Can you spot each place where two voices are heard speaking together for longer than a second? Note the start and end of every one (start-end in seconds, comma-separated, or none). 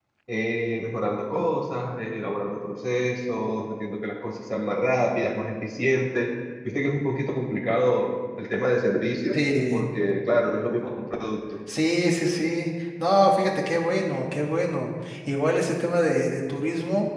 none